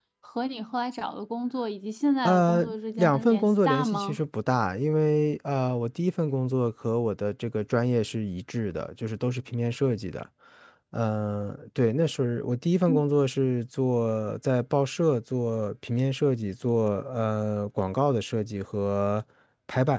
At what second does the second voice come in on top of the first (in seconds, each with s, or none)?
2.2 s